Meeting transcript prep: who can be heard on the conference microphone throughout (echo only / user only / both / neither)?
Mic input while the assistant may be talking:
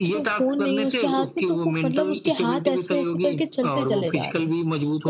both